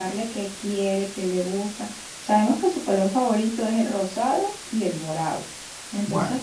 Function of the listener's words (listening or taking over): listening